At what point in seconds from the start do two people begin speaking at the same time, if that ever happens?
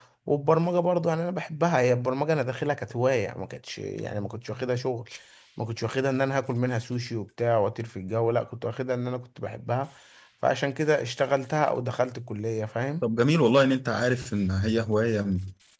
none

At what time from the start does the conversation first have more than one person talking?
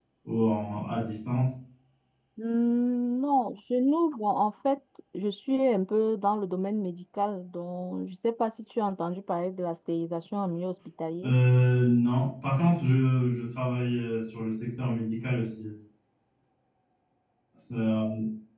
none

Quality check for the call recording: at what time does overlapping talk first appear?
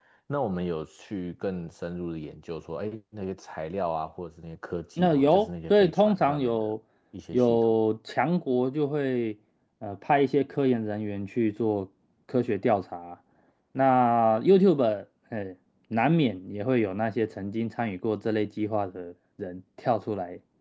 5 s

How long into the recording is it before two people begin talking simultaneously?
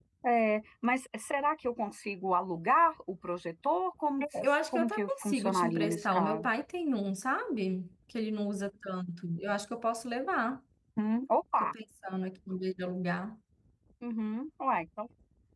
4 s

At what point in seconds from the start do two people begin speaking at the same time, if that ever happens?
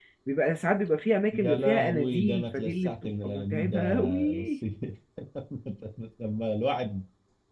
1 s

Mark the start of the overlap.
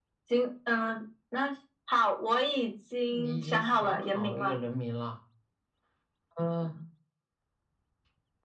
3 s

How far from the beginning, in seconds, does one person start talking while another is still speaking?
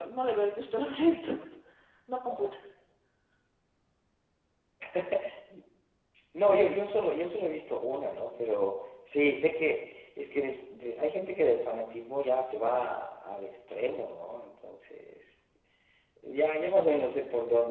none

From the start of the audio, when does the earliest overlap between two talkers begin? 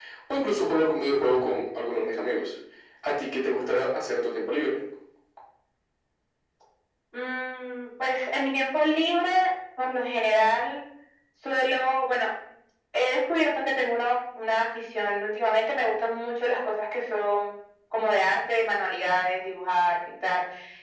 none

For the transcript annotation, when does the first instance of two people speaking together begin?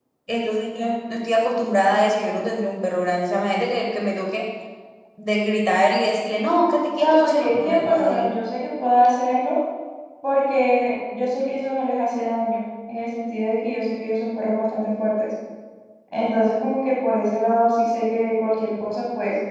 7 s

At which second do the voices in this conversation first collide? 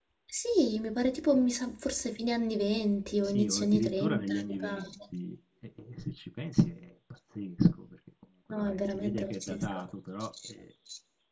3 s

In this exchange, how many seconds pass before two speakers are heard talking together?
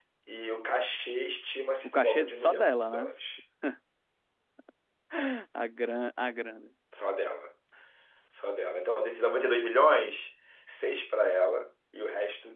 2 s

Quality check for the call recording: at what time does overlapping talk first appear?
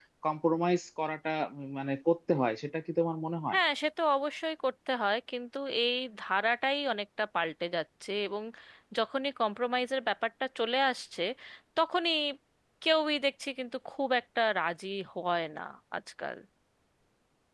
none

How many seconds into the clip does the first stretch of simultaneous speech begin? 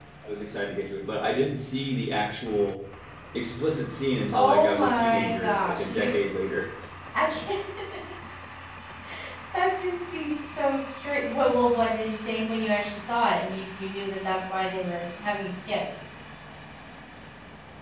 4 s

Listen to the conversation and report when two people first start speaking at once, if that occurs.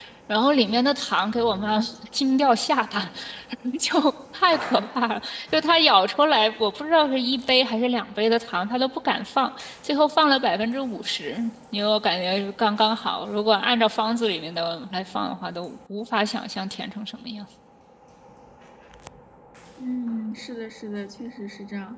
none

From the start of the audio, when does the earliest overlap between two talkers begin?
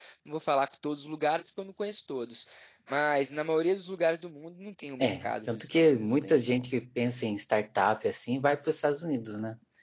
5 s

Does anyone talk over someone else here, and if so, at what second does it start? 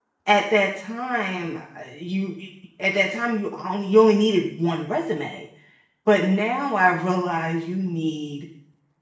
none

